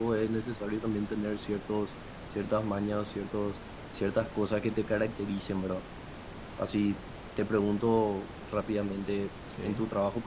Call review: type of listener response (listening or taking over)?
listening